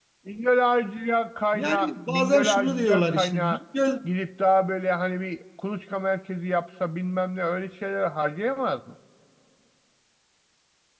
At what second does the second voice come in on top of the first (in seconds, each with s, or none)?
1.5 s